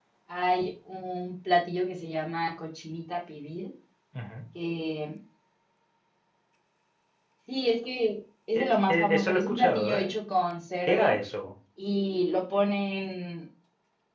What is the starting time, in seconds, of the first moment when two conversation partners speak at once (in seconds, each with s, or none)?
8.6 s